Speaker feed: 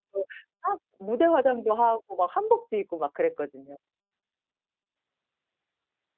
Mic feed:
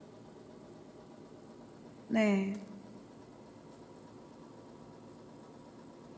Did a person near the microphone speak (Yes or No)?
Yes